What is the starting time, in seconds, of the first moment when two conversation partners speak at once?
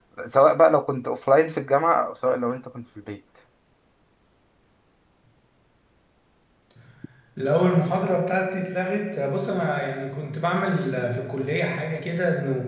none

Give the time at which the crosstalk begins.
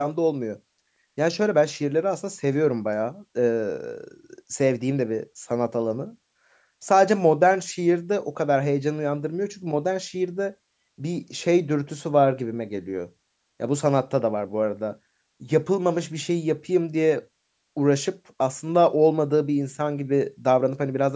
none

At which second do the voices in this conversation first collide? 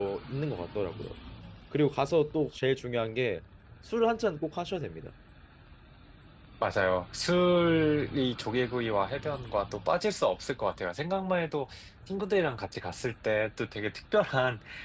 none

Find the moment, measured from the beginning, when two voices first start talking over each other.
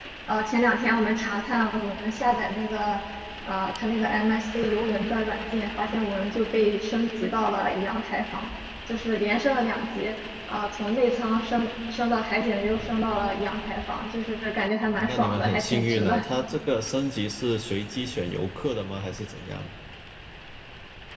15.0 s

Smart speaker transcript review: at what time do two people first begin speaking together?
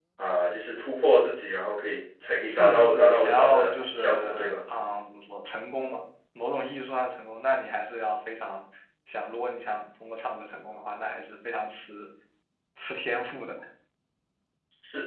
2.5 s

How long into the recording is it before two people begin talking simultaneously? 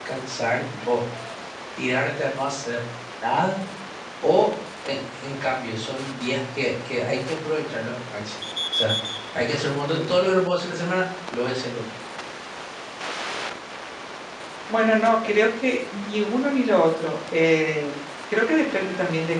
none

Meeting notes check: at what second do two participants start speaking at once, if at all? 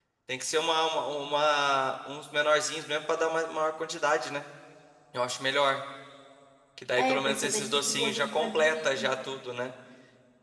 7.0 s

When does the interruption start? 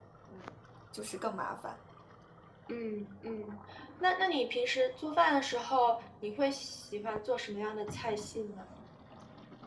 none

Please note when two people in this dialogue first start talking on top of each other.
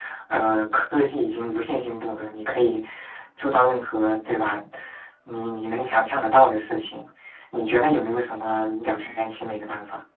none

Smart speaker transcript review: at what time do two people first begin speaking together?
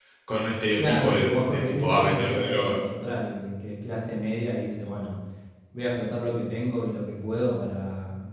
0.8 s

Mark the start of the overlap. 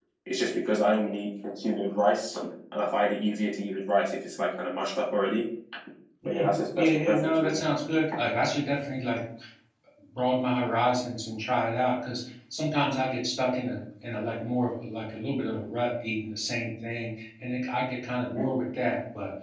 6.3 s

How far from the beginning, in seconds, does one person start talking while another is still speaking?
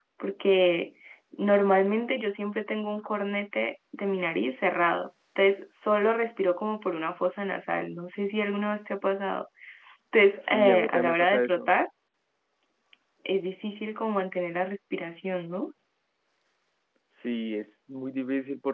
10.4 s

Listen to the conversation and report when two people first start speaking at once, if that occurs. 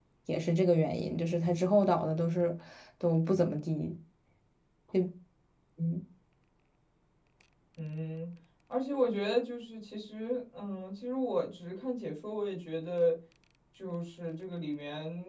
none

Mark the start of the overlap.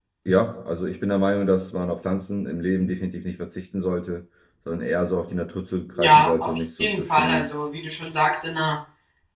6.0 s

